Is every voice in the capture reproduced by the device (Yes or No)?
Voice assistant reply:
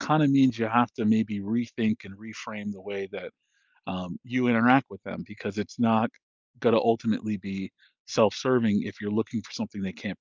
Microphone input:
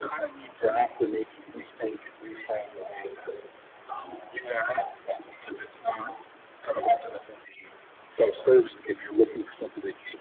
Yes